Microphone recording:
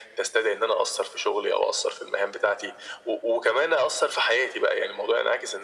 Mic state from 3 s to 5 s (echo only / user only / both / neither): echo only